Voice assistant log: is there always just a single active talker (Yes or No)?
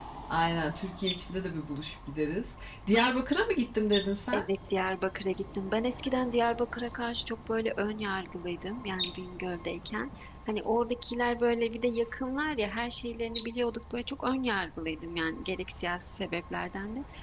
Yes